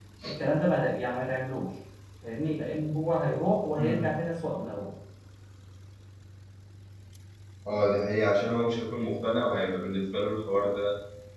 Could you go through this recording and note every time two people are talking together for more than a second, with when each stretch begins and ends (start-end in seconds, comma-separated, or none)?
none